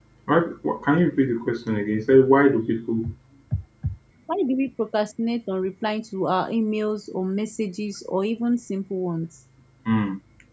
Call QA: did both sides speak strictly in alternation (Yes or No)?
Yes